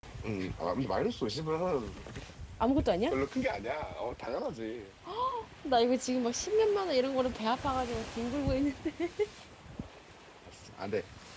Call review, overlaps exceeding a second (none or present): none